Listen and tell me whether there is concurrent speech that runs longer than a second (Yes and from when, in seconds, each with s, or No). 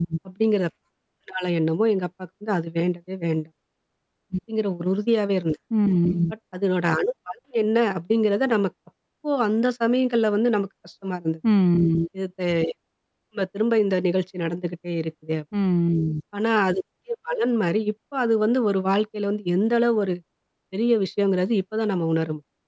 No